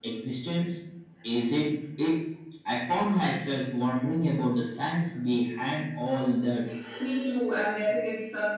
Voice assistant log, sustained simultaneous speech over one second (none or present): none